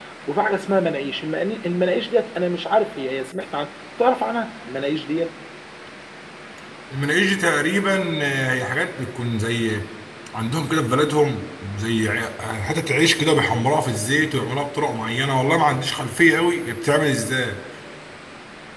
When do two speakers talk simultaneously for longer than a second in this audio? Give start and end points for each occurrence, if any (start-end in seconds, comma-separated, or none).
none